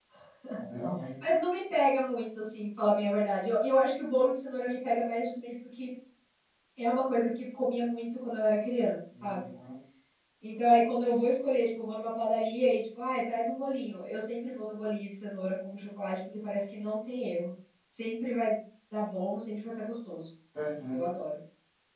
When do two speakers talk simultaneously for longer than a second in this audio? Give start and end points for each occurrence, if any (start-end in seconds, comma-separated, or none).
none